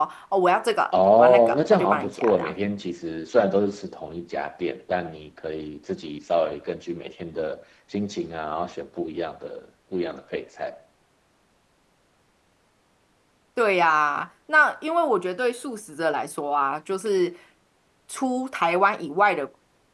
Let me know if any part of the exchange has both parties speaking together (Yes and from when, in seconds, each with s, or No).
Yes, from 1.2 s